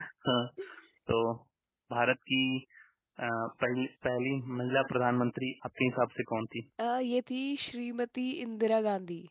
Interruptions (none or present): none